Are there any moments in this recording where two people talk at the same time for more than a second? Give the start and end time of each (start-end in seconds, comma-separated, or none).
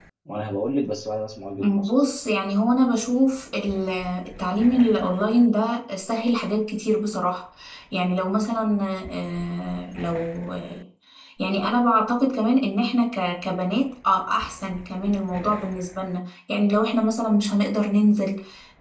none